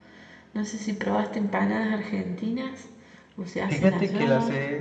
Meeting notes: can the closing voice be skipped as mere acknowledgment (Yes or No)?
No